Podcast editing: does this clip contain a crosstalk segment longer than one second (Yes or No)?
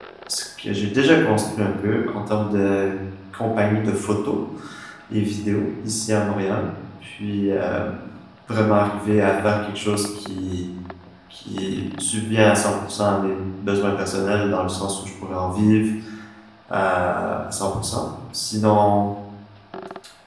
No